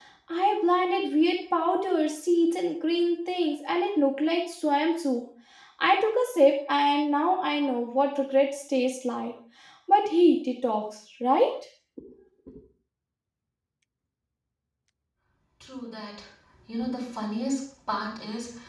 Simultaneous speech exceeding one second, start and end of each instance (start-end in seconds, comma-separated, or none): none